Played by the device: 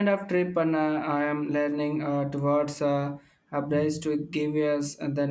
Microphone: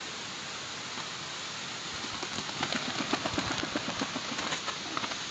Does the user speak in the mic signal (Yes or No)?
No